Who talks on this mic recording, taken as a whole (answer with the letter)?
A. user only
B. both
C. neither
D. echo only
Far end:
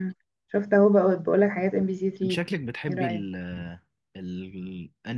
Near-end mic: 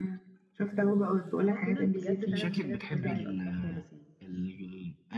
B